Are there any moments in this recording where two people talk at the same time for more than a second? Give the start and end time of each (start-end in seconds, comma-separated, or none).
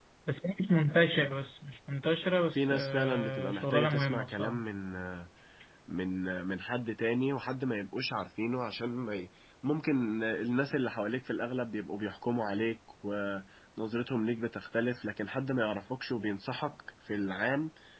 2.5-4.6